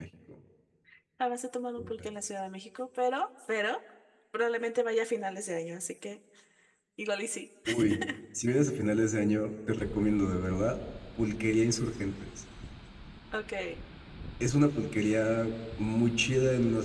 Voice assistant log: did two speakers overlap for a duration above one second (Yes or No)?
No